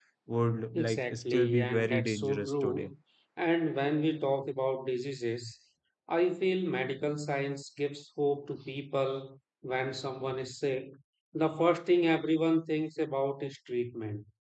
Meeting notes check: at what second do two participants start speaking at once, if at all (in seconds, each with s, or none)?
0.7 s